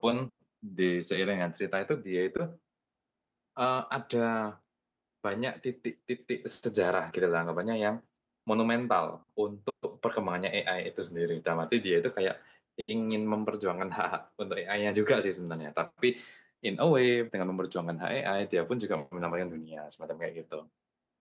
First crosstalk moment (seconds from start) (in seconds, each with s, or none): none